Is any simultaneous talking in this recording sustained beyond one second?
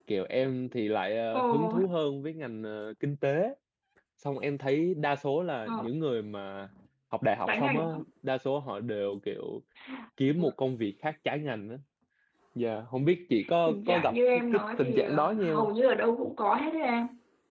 Yes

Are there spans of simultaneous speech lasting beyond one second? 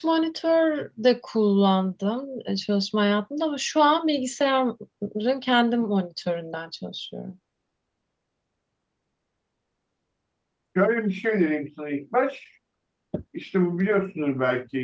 No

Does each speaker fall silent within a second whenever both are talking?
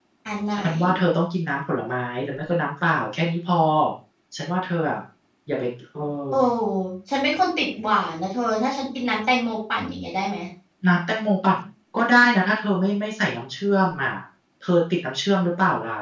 Yes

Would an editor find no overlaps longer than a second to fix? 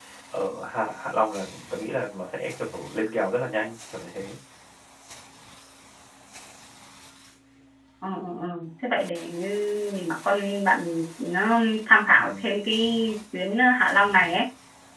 Yes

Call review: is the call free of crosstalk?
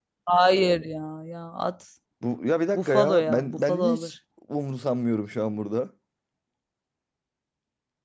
No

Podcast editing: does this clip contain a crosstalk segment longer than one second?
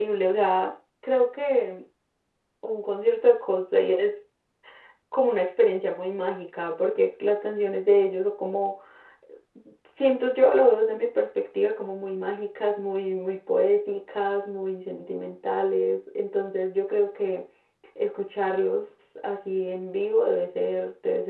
No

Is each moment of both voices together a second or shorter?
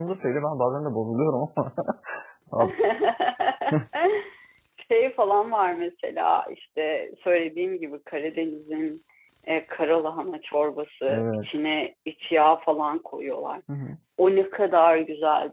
Yes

